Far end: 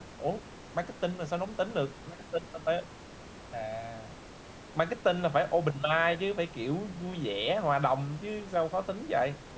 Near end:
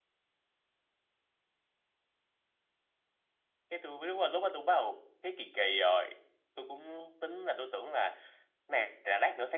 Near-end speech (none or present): present